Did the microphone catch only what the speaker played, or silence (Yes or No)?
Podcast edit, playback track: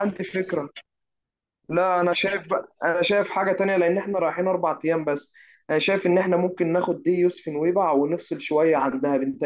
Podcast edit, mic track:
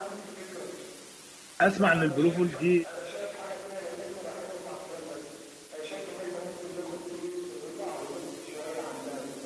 No